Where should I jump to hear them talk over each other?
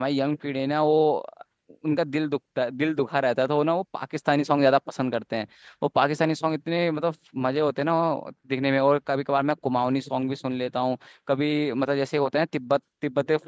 none

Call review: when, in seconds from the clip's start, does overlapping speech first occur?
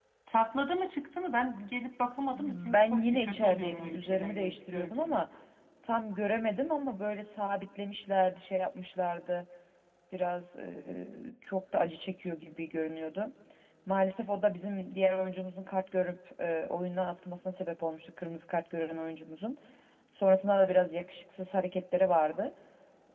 2.3 s

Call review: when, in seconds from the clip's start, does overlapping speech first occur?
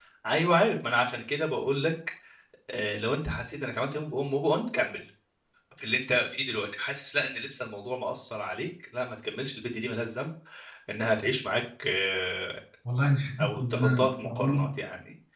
13.4 s

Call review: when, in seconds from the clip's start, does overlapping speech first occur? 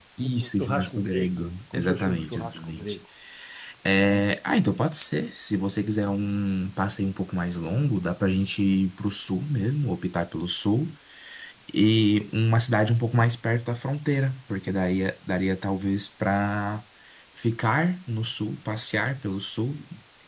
0.6 s

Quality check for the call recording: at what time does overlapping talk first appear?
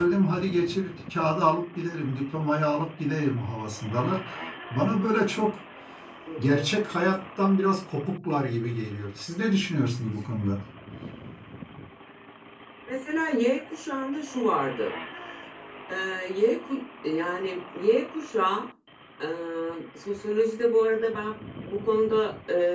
none

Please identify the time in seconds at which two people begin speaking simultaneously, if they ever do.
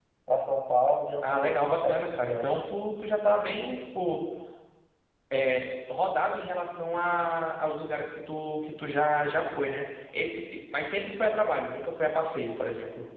1.2 s

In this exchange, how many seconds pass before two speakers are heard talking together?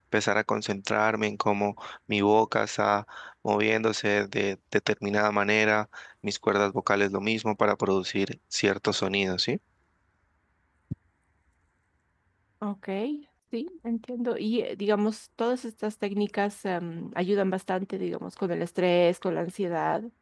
none

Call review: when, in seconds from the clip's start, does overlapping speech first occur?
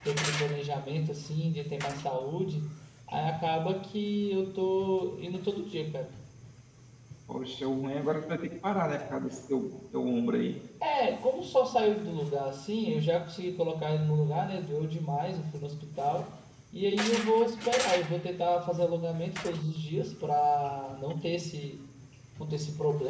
none

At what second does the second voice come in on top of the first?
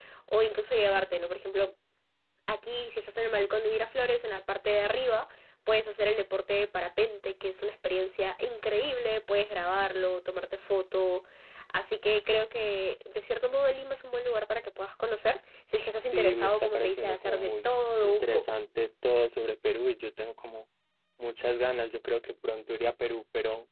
16.1 s

